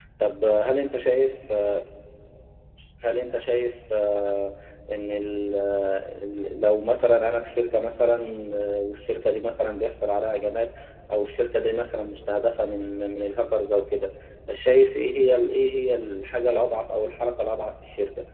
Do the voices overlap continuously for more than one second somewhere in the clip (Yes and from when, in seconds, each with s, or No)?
No